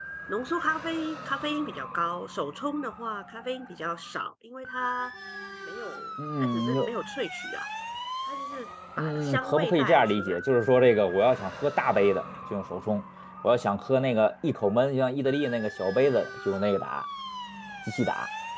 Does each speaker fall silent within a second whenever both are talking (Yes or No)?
No